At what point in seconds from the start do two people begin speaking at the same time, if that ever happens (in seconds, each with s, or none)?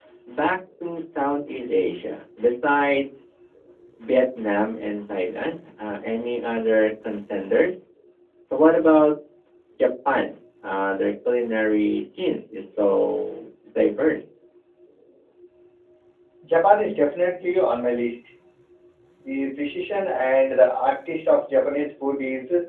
none